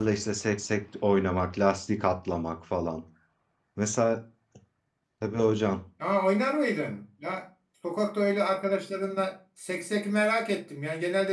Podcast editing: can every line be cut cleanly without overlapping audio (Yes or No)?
Yes